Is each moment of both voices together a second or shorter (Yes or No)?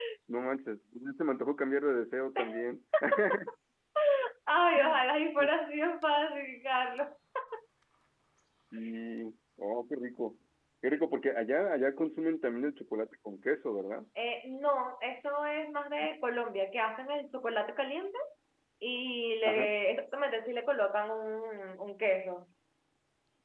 Yes